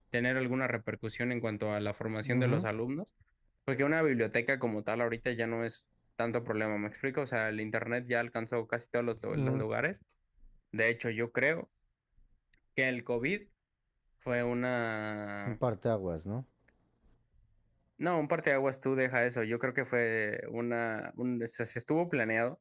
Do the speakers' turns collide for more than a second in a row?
No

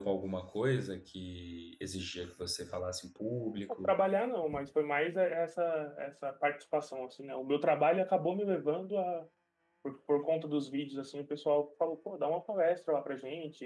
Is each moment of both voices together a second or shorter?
Yes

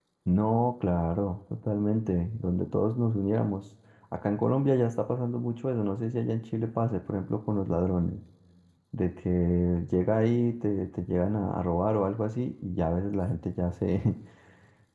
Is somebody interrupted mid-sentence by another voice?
No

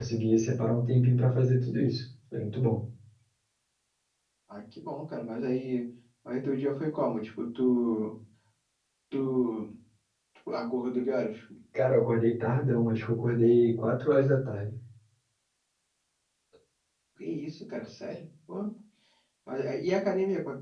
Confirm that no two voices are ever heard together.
Yes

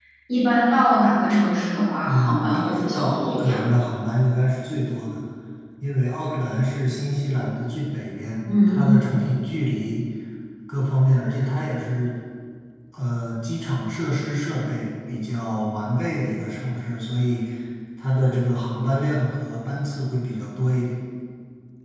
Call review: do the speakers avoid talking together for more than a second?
No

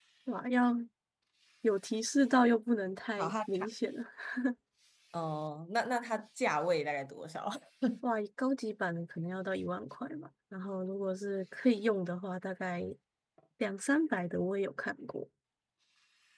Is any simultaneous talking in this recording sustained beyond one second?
No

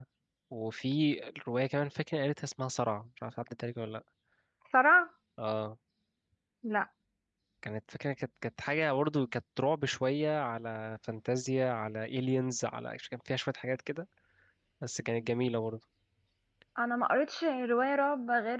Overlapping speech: No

